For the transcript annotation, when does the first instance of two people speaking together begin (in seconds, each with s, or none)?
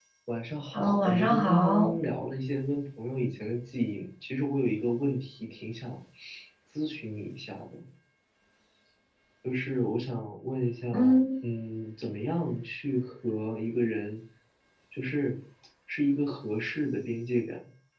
0.7 s